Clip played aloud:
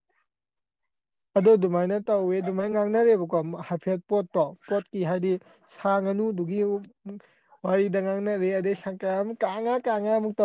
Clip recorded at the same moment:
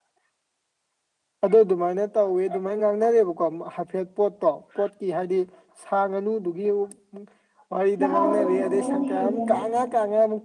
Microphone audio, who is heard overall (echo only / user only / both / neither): both